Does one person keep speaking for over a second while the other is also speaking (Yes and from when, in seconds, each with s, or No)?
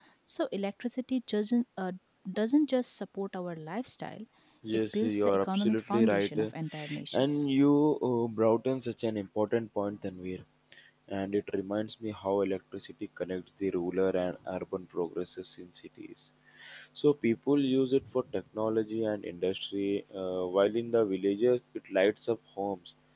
Yes, from 4.9 s